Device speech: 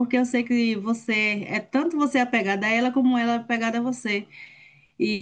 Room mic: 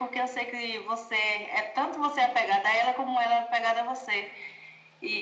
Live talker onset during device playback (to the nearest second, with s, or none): none